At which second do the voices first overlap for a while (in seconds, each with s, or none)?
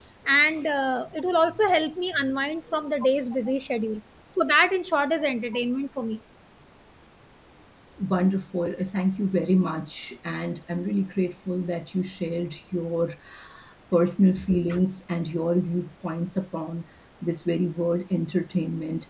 none